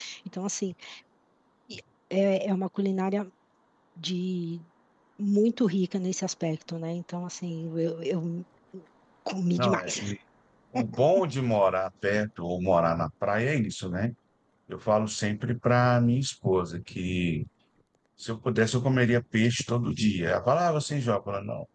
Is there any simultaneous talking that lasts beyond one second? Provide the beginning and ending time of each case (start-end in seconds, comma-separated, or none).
none